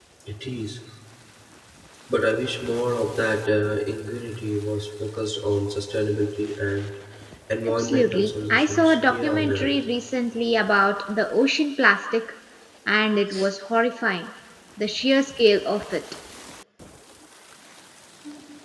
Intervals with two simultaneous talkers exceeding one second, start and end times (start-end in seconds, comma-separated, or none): 7.7-9.7